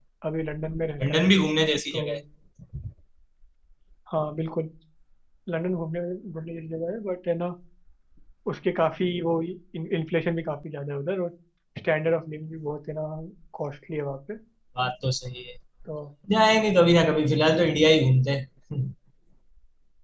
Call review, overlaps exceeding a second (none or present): none